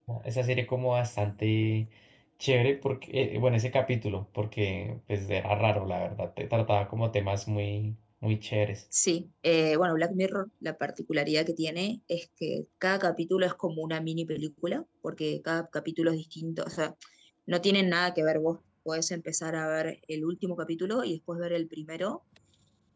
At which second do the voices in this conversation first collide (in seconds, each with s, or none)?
none